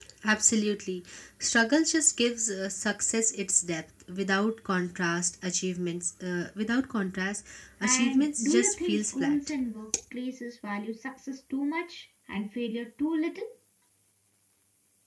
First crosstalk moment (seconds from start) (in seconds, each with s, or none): 7.8 s